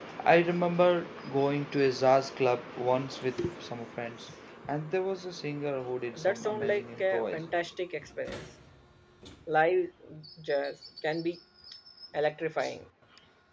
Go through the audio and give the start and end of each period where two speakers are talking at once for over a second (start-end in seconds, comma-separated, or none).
6.2-7.4